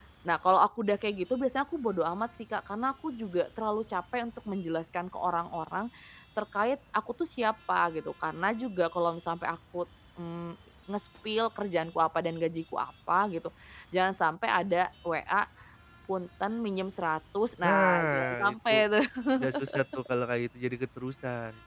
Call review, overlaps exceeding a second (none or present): present